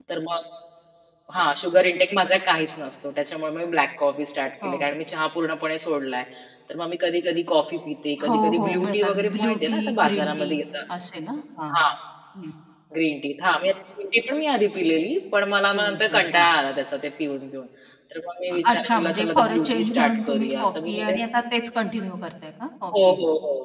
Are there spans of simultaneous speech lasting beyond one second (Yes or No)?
Yes